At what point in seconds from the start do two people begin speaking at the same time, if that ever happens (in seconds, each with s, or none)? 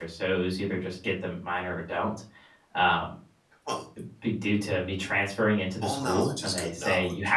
5.8 s